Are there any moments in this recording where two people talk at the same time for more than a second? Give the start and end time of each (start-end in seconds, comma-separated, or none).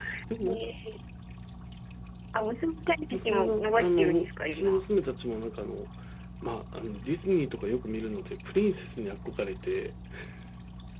3.1-4.8